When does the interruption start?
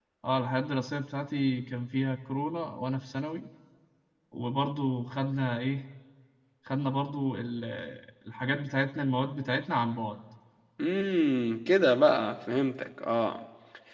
none

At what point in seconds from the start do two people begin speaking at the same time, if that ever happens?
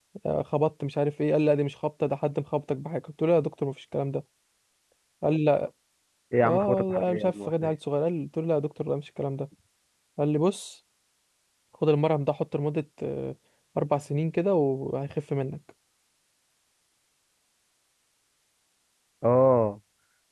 6 s

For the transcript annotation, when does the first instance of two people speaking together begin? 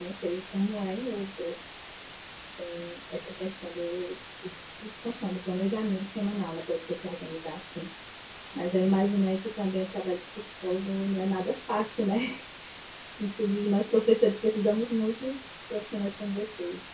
none

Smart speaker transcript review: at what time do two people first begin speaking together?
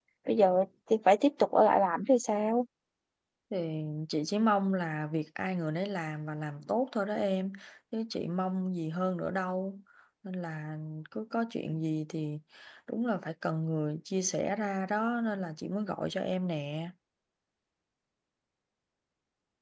none

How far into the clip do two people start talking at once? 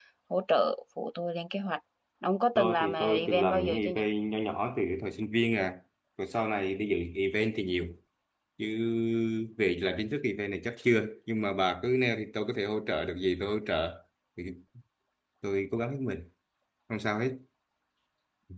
3 s

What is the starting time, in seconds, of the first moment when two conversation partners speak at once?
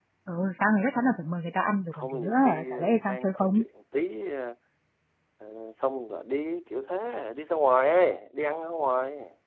2 s

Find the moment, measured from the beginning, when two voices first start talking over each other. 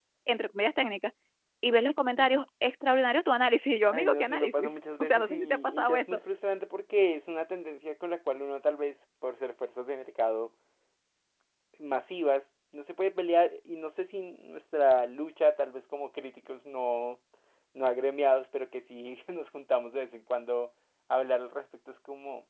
4 s

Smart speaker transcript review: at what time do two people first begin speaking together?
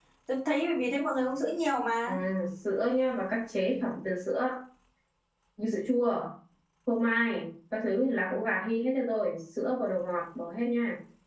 none

